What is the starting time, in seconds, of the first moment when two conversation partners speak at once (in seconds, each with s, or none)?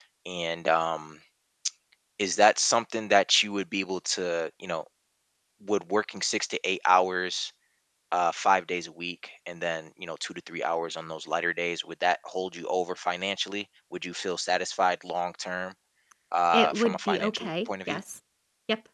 16.5 s